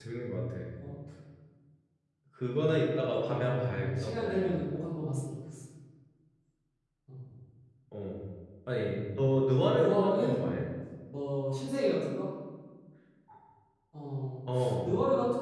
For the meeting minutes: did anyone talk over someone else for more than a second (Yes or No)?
Yes